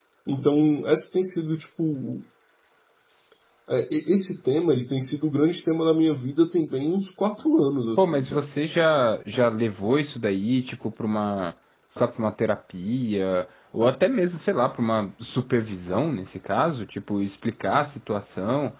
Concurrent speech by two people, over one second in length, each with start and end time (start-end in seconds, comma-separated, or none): none